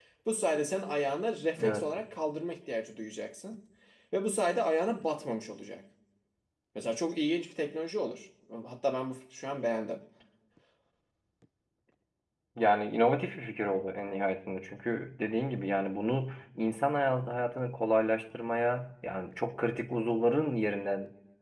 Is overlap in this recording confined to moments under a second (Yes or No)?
Yes